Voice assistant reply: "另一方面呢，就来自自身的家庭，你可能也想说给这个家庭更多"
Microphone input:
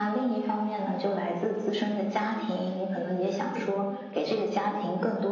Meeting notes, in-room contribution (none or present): present